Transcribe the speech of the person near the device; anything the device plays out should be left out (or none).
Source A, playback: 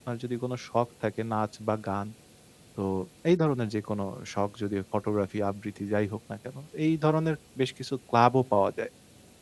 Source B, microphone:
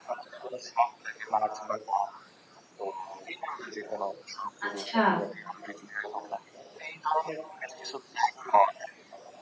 আচ্ছা।